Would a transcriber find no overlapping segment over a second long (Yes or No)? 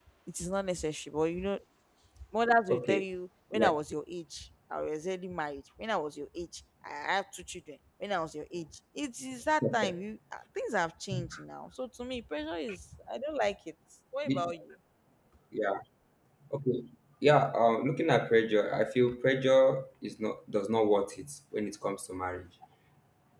Yes